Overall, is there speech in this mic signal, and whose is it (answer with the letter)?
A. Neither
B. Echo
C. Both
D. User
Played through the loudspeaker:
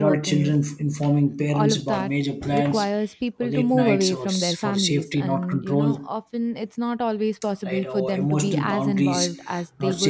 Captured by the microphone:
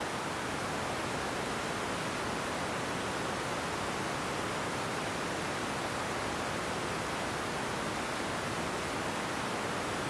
A